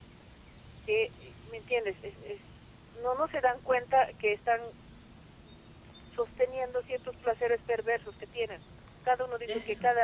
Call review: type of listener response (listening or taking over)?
listening